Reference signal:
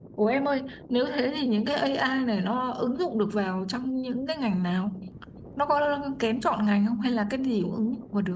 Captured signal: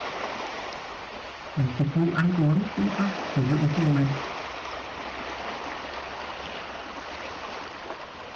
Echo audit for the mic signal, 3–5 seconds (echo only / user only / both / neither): user only